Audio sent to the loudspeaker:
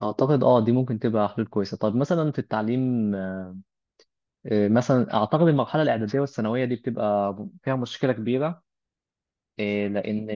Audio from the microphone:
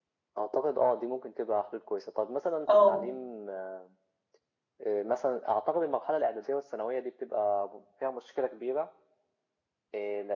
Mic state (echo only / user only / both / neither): both